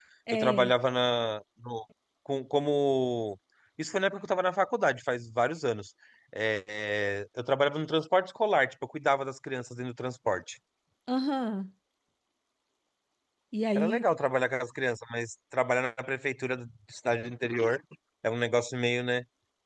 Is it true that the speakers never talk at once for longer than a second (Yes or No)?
Yes